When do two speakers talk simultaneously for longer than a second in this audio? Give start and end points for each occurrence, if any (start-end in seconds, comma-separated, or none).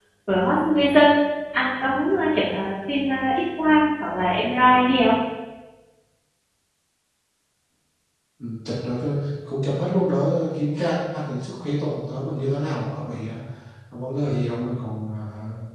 none